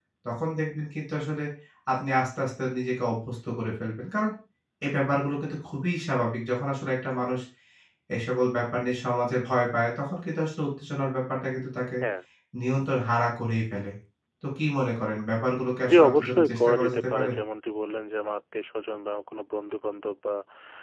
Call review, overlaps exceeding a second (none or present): present